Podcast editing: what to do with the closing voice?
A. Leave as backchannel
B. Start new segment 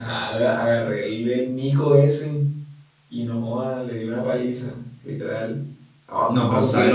B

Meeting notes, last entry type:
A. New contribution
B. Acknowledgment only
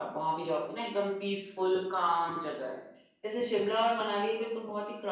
B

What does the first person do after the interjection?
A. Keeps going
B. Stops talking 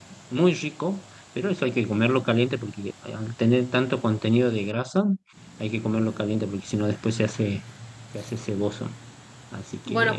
B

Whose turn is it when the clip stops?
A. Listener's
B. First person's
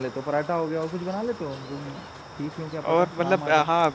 A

